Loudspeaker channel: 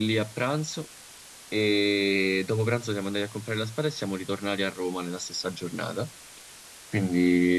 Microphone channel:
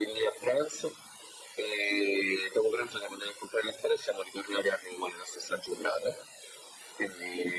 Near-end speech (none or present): none